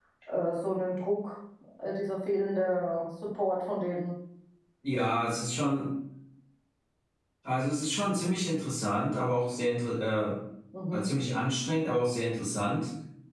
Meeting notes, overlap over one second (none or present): none